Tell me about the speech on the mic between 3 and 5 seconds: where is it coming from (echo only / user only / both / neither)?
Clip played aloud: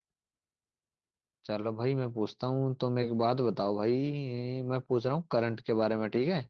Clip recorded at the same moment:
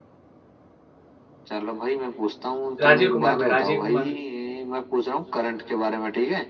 both